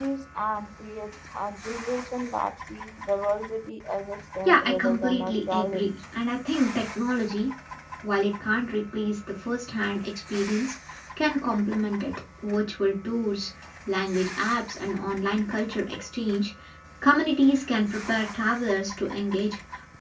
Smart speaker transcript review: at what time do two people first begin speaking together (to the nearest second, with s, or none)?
4 s